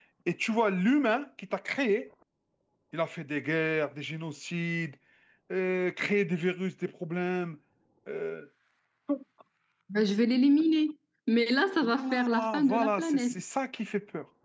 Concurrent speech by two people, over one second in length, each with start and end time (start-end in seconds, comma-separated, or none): 11.8-13.3